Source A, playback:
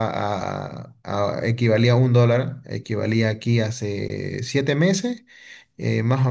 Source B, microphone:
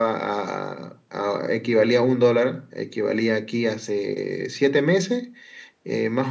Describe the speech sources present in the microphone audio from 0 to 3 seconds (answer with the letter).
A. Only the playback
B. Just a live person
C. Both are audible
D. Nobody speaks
A